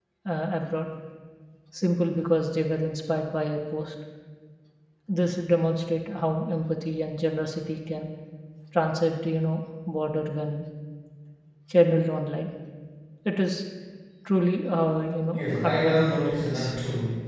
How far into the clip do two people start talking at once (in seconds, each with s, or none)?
15.3 s